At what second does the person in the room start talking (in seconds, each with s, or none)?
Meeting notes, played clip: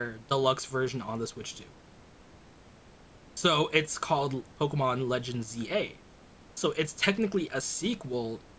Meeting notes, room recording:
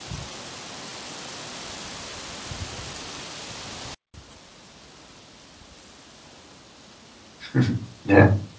7.5 s